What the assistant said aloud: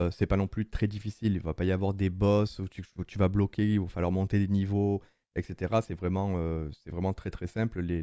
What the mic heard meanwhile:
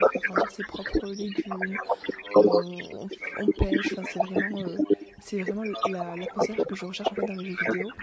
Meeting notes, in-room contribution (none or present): present